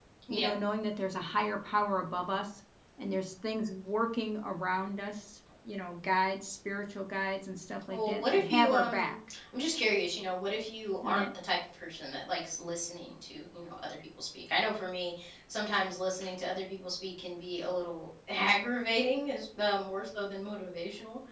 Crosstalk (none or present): present